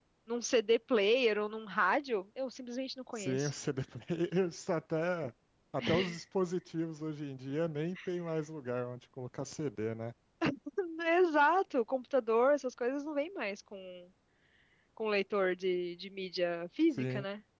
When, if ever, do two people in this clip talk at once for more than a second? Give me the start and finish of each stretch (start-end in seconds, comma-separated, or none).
none